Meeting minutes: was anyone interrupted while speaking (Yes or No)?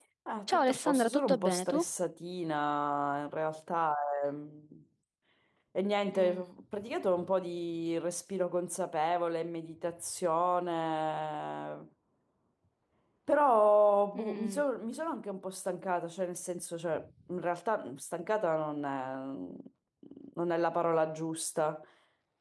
Yes